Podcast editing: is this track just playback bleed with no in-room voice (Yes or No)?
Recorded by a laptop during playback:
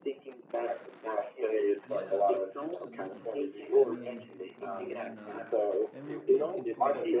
No